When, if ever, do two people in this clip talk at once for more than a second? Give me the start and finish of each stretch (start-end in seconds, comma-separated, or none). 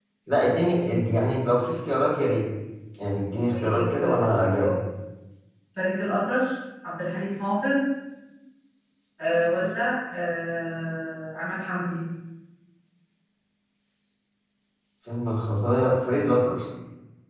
3.5-4.7